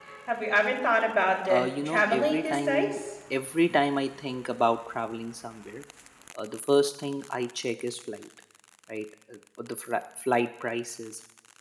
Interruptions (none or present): present